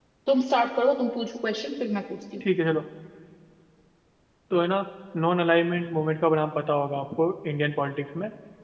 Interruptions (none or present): none